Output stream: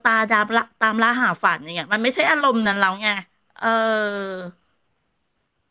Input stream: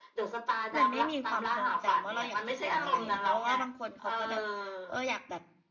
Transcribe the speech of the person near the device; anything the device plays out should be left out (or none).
มันไม่มีความทรงจำว่าเราอยากจะเป็นอะไรอ่ะเพราะว่าบางคนเขาก็แบบเอออยากแบบ